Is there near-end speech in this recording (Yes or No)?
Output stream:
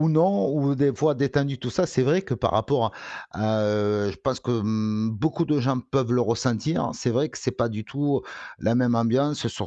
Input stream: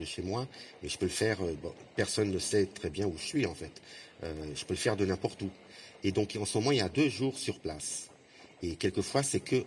Yes